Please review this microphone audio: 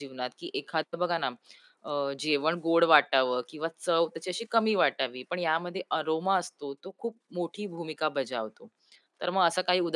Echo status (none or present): none